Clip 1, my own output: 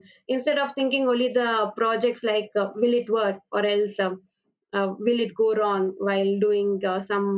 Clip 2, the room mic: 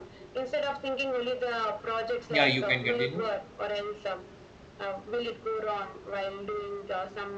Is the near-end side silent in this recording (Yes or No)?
No